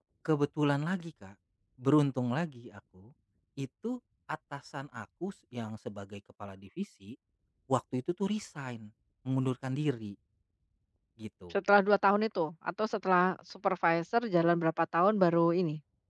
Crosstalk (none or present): none